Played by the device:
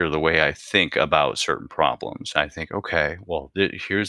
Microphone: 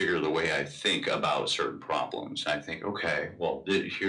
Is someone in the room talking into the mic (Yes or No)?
No